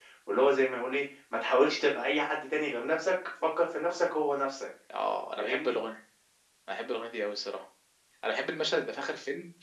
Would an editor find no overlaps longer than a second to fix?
Yes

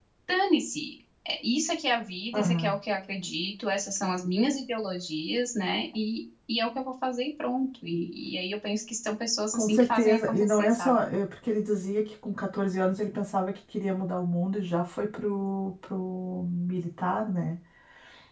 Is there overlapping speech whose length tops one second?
Yes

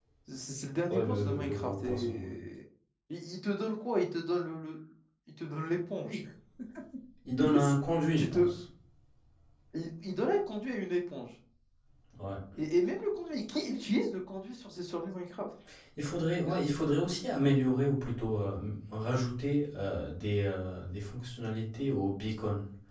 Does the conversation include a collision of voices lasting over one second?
Yes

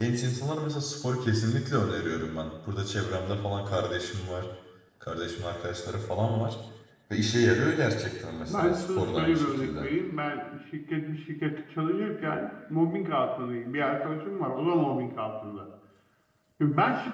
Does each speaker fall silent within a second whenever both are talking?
No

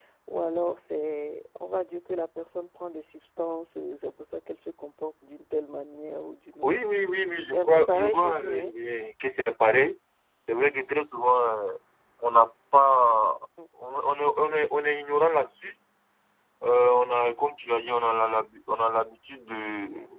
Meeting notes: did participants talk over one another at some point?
Yes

